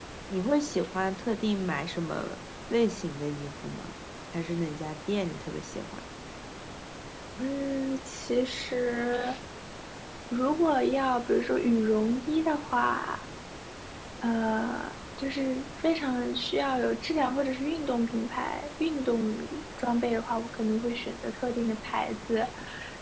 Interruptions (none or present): none